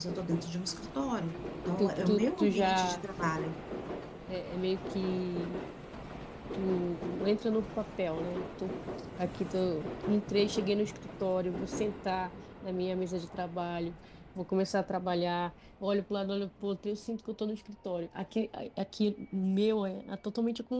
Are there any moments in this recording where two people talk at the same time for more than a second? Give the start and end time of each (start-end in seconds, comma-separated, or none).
1.8-3.0